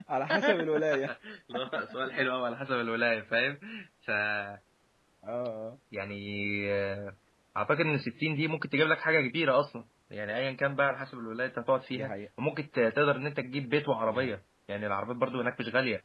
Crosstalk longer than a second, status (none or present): none